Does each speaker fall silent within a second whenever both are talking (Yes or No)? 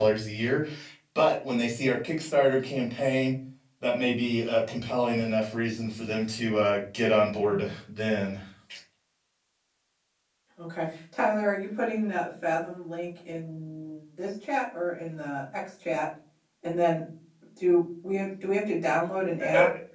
Yes